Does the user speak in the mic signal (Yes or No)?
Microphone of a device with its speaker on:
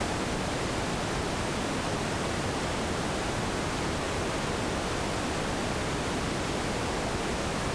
No